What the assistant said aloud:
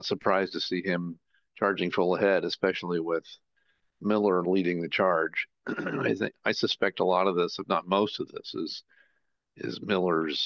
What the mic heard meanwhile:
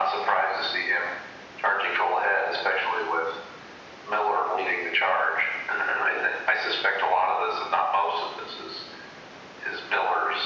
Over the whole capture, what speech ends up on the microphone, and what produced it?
echo only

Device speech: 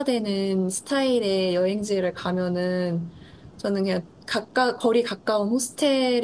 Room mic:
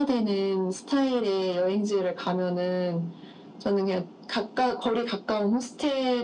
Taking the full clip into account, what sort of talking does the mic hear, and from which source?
echo only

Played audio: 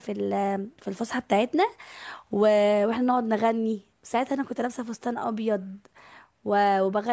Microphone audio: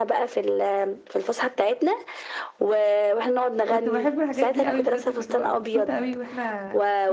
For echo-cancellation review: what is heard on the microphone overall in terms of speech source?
both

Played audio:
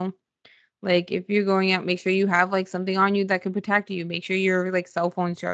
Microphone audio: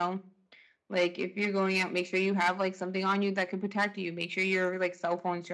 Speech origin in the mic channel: echo only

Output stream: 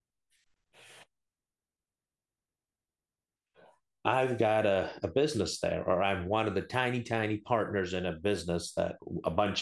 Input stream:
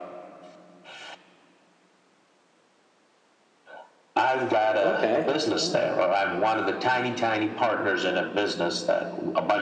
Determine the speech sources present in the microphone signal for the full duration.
both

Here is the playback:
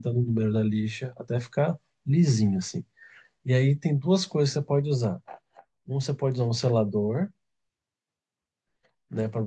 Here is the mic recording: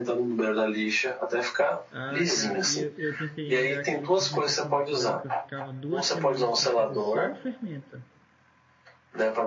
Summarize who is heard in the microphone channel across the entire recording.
both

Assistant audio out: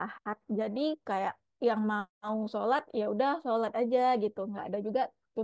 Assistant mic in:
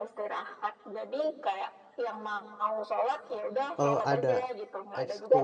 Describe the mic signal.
both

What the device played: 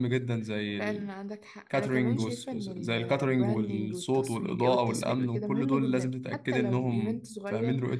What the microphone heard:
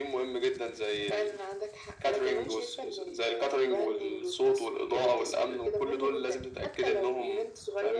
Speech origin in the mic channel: echo only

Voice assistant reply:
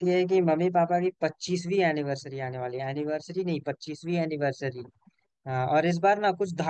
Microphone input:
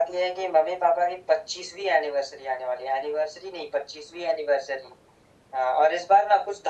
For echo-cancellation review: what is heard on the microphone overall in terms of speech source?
echo only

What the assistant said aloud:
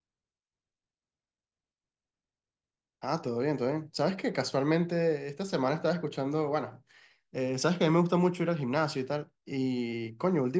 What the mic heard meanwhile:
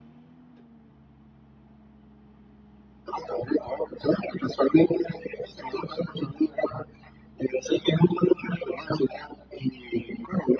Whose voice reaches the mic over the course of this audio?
echo only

